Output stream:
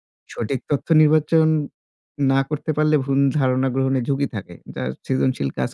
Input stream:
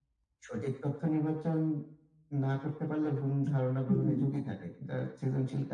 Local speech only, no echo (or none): হুম।